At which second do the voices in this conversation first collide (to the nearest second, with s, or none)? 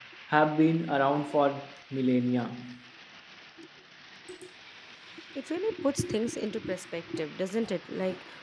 none